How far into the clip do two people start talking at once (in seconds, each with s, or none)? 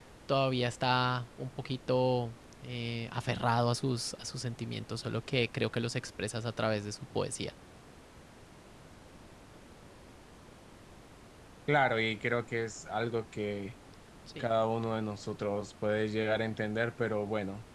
none